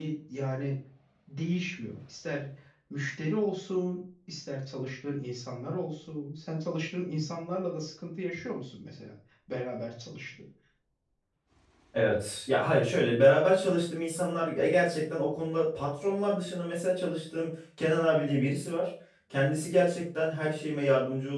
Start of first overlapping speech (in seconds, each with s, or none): none